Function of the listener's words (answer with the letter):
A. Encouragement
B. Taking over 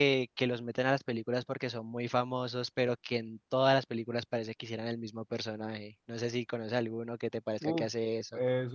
B